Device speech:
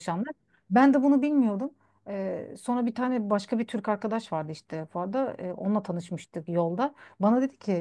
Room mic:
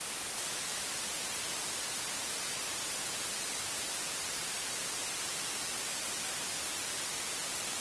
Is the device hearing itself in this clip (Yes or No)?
No